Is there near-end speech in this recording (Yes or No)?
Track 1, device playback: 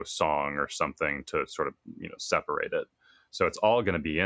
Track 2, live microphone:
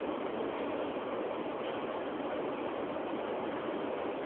No